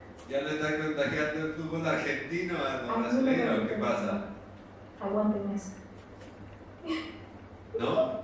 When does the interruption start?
2.9 s

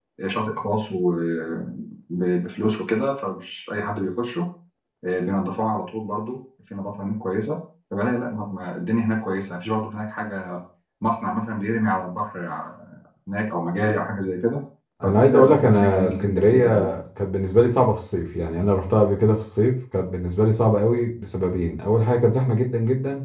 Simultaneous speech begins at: 15.0 s

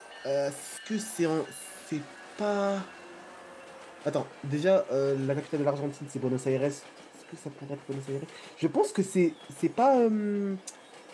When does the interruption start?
none

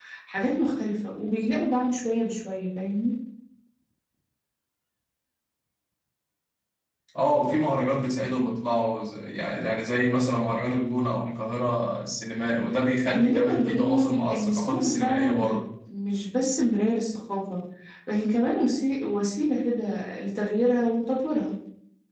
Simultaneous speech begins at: 13.1 s

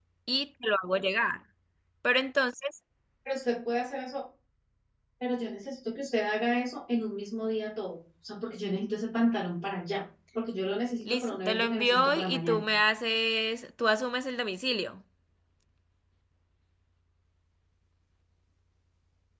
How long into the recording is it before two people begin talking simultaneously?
11.1 s

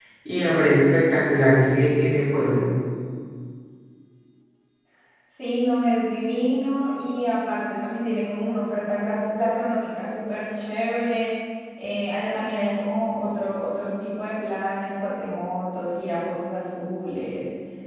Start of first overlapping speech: none

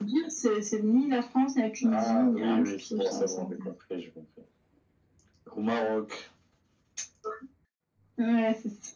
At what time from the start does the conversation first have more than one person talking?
1.8 s

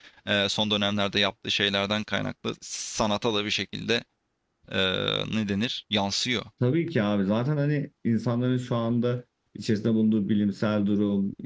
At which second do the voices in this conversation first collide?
none

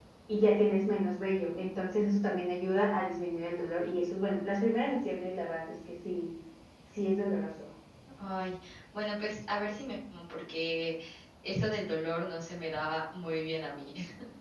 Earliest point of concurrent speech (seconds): none

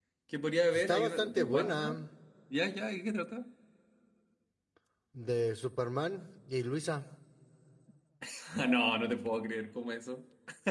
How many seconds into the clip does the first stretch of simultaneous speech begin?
0.7 s

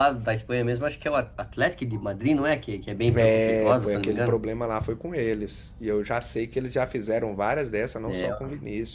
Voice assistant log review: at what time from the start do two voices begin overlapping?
3.2 s

